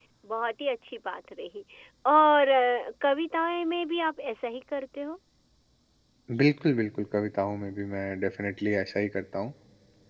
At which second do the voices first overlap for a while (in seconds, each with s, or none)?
none